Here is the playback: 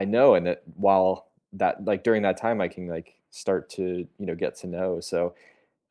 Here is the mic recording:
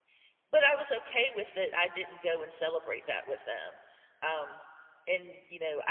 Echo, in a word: none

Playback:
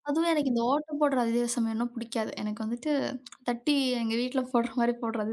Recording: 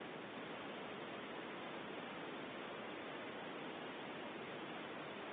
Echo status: none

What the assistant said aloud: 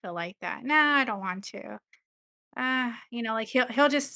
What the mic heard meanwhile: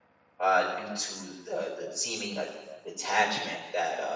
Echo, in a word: none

